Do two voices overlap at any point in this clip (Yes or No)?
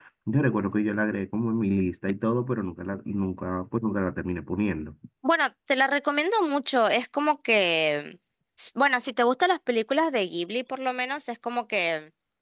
No